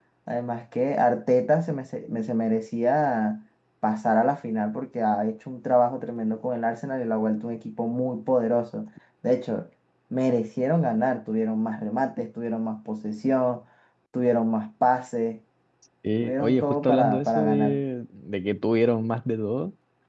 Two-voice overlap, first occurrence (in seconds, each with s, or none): 16.2 s